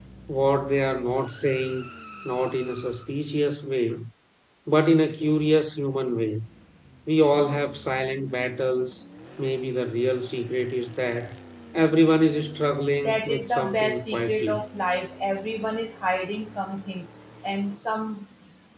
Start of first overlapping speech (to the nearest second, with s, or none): 13 s